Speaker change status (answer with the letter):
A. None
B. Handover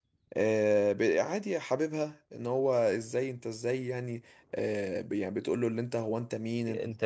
A